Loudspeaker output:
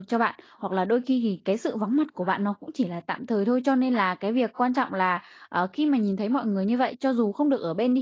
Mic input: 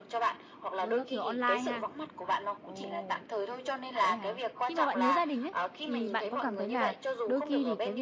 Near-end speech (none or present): present